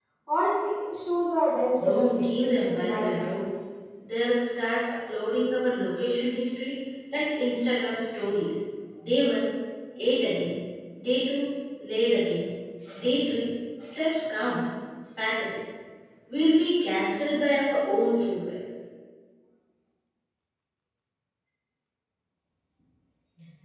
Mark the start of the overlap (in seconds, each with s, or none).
1.8 s